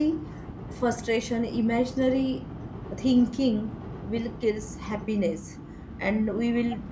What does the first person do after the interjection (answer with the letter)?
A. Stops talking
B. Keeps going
B